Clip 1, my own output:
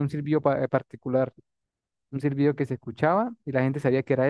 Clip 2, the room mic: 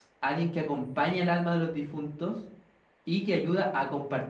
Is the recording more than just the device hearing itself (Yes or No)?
Yes